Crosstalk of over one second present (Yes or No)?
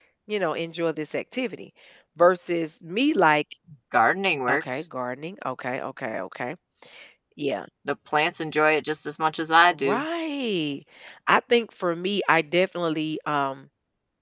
No